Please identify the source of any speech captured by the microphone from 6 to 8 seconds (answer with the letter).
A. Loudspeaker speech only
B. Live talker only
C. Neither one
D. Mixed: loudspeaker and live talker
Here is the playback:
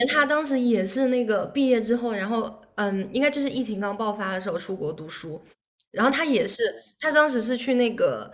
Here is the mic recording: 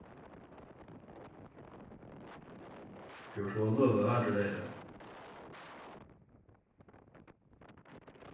C